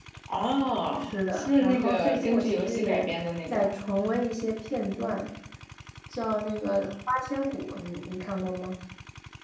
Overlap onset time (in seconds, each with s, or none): 1.0 s